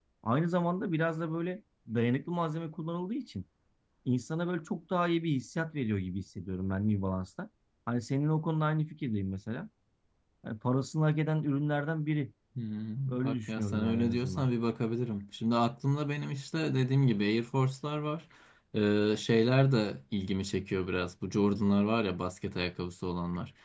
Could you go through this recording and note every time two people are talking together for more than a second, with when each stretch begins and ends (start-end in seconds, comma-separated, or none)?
13.2-14.5